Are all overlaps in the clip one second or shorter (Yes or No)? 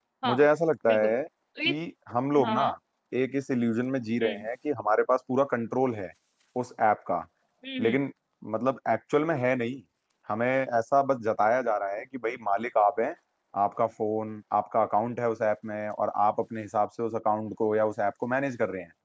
Yes